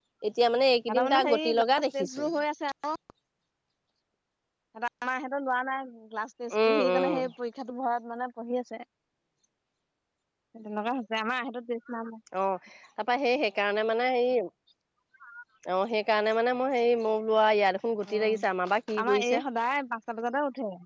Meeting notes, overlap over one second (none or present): present